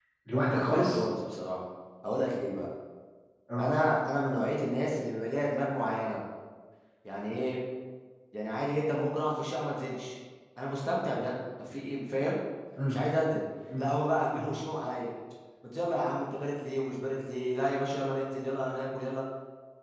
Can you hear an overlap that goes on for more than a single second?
No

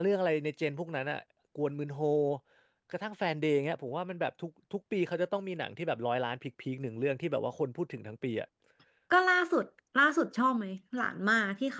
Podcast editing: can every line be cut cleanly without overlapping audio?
Yes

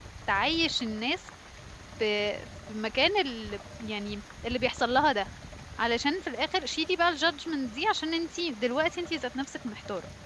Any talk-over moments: No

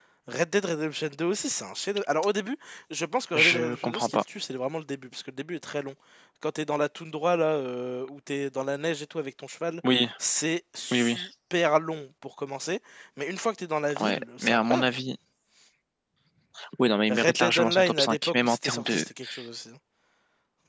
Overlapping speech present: Yes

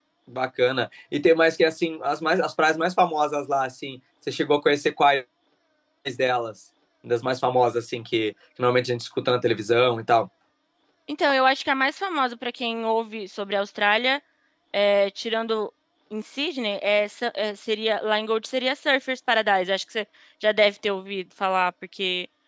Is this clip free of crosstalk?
Yes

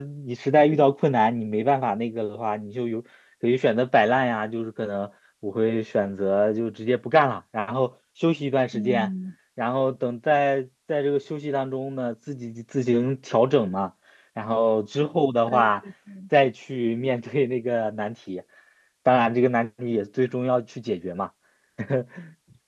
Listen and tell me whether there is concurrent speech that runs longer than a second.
No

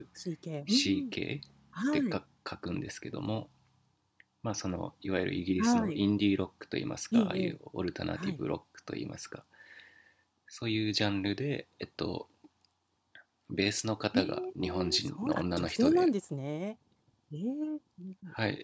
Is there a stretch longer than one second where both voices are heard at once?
Yes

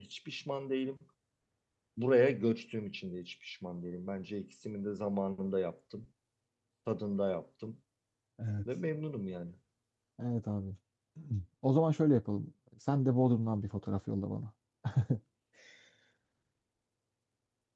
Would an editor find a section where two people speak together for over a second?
No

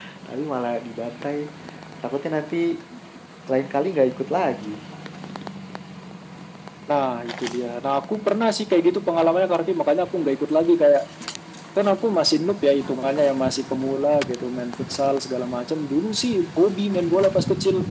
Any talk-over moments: No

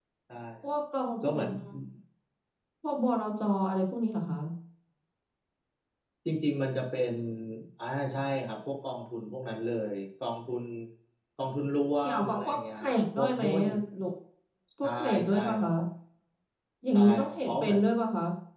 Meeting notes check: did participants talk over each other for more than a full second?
Yes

